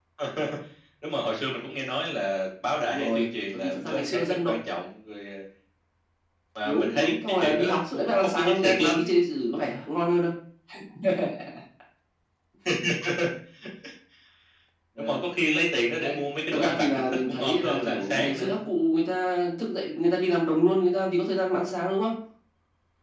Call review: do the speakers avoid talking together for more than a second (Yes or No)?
No